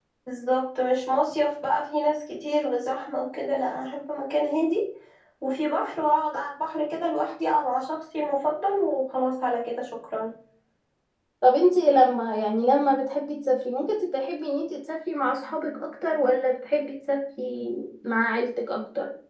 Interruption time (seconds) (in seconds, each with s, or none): none